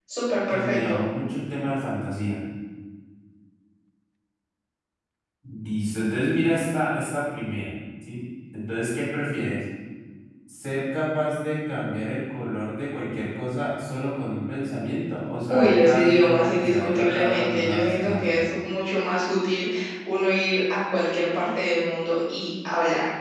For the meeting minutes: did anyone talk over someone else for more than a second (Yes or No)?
Yes